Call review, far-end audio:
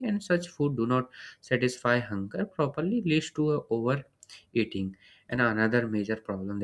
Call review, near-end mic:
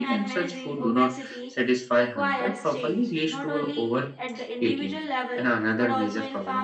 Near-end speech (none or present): present